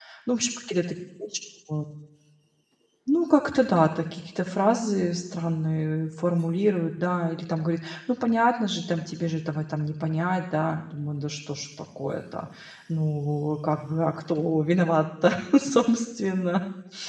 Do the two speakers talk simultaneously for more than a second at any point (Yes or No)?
No